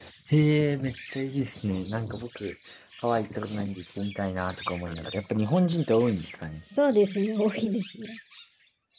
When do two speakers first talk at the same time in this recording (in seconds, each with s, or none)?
none